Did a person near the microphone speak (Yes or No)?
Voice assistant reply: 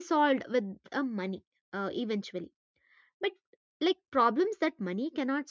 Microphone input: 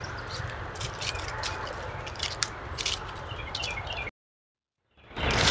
No